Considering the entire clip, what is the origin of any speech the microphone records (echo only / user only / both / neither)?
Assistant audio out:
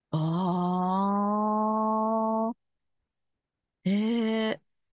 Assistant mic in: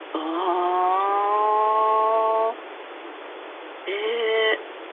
echo only